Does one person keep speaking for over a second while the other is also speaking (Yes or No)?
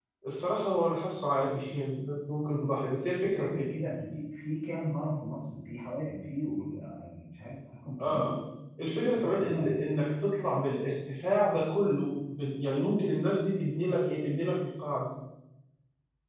No